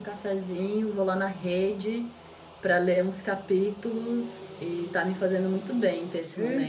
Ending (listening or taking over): taking over